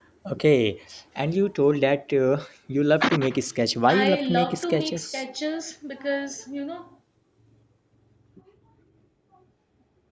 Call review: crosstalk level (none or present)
present